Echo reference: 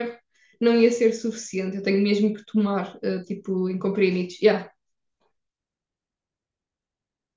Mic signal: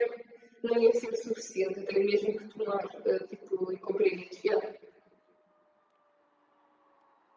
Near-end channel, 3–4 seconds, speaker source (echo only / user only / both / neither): echo only